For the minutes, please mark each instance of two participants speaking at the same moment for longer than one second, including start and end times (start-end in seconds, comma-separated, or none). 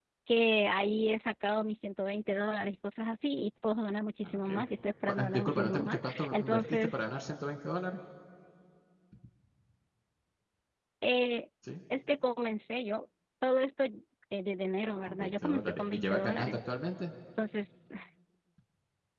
5.1-7.0, 15.0-16.6